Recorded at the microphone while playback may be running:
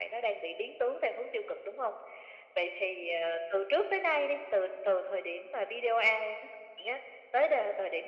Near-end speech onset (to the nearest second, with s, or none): none